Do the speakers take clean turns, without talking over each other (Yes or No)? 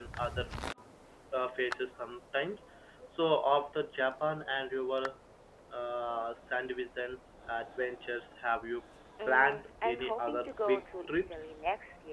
No